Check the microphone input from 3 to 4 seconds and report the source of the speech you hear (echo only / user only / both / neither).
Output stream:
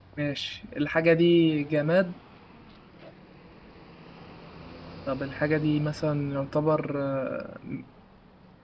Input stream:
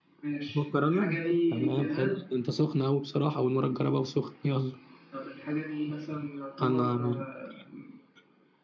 user only